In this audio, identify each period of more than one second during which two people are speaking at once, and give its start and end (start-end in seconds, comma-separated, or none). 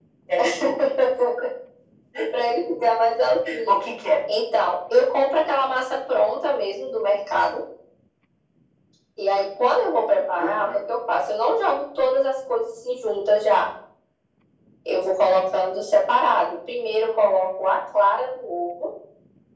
none